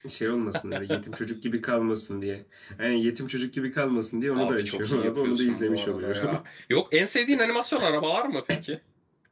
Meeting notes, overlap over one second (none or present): present